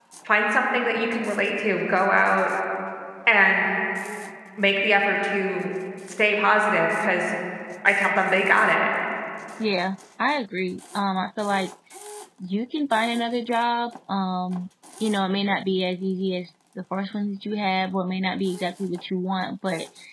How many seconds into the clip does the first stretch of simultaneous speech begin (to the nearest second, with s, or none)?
none